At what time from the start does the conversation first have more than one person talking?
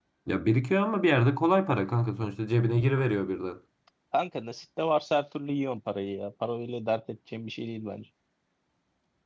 none

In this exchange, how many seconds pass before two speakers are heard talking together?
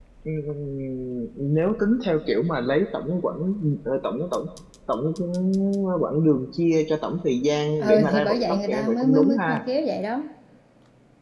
7.8 s

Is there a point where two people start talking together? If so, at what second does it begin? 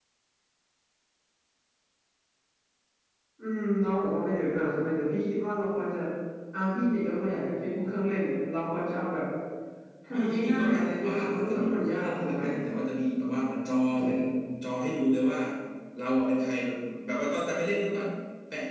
10.1 s

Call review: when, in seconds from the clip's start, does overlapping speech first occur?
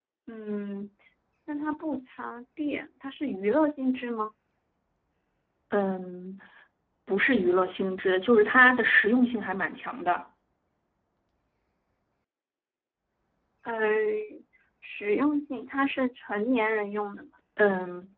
none

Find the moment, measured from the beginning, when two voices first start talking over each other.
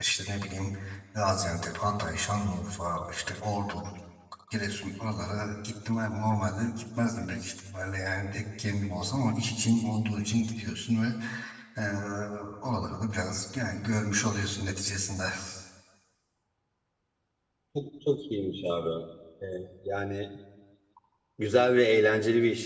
none

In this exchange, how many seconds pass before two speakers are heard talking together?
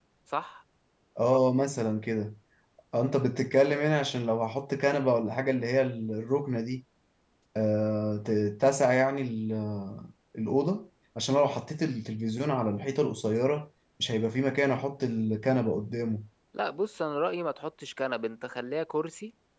none

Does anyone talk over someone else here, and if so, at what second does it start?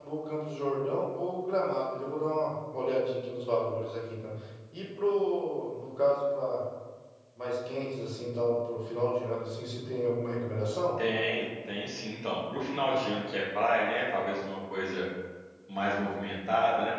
none

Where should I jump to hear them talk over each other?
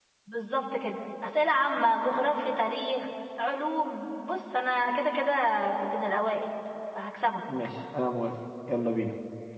none

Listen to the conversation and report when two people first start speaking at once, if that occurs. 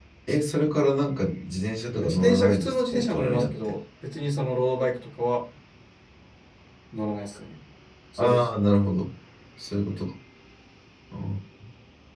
2.0 s

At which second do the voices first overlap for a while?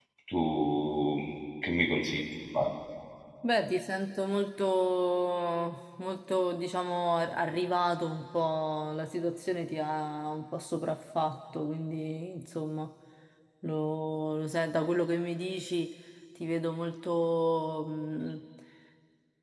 none

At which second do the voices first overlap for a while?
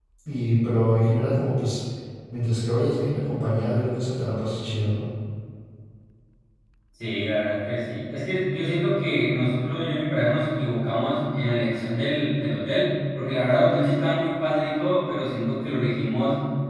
none

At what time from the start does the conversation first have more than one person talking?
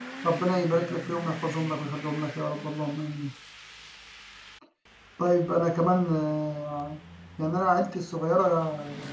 0.5 s

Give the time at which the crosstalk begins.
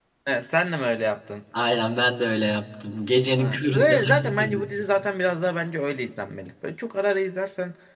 3.3 s

